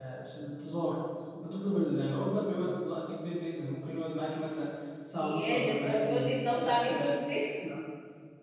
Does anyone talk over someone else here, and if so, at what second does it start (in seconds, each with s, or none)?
5.2 s